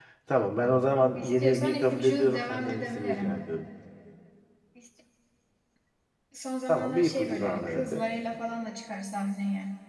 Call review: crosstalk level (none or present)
present